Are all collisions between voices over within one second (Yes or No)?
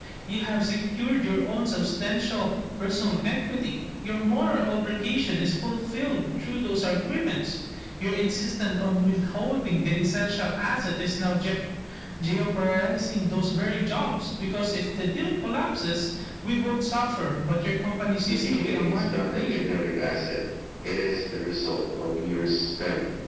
No